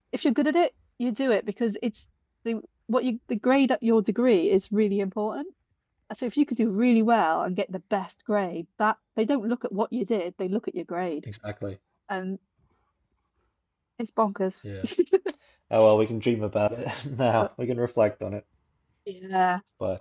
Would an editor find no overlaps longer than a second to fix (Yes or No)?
Yes